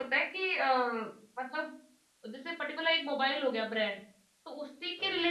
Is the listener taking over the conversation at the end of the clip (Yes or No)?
No